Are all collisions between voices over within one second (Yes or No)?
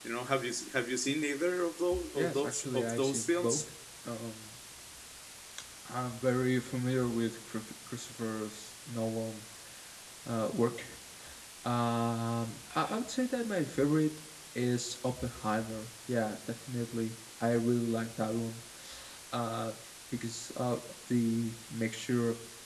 No